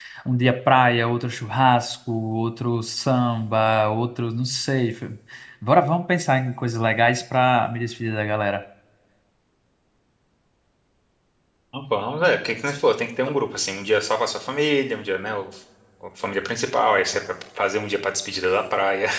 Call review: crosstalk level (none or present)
none